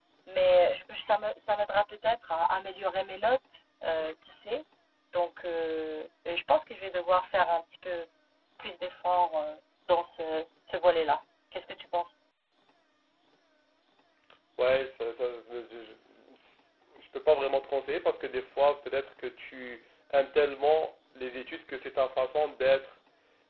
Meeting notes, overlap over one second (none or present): none